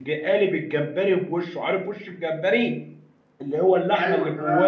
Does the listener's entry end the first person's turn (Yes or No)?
No